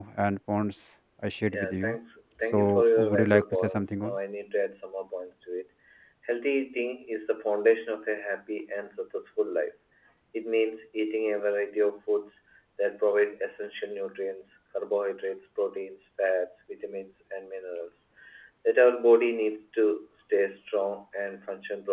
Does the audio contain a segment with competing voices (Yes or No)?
Yes